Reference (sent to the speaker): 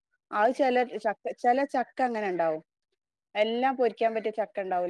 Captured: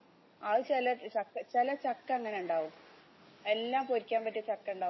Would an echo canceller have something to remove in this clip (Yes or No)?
Yes